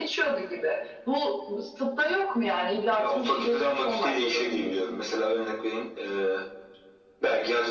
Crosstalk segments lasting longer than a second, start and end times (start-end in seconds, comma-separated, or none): 3.0-5.0